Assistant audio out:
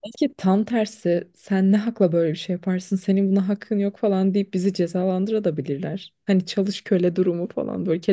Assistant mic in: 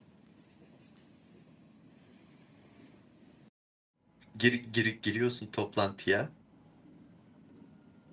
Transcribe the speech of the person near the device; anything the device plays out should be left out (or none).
gir, gir- giriyorsun toplantıya.